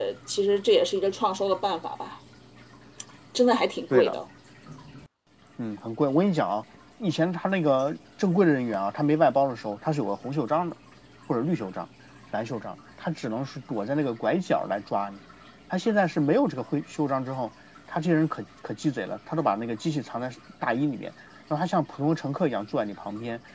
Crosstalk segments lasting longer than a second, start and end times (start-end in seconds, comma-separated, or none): none